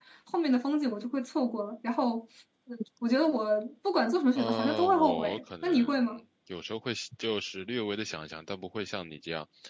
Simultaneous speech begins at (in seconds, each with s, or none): 4.3 s